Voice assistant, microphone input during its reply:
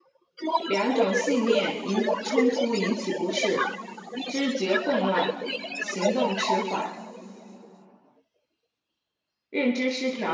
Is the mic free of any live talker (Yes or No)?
No